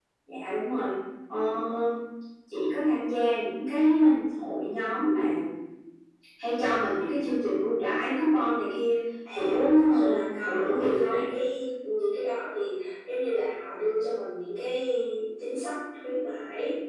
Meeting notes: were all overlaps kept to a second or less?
No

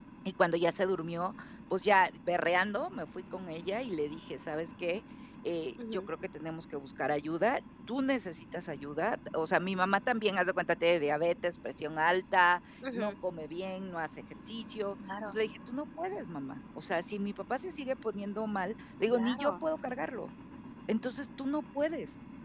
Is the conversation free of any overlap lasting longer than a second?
Yes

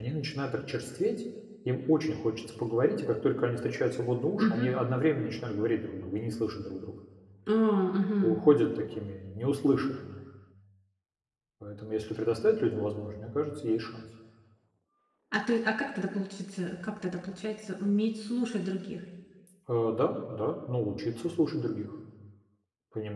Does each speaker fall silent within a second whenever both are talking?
Yes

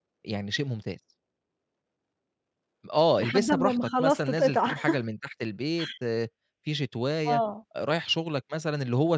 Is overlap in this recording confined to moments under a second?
No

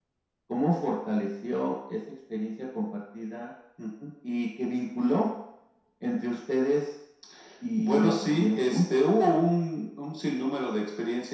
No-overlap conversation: No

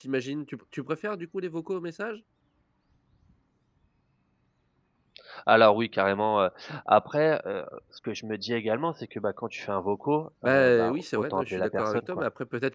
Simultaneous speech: Yes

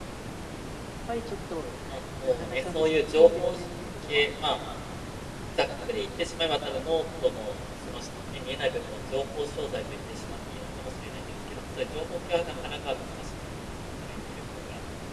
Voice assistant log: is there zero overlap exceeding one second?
No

